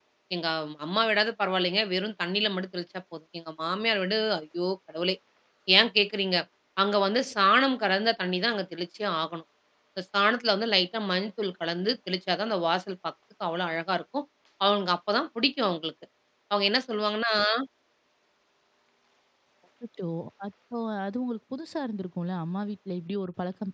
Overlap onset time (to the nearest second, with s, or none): none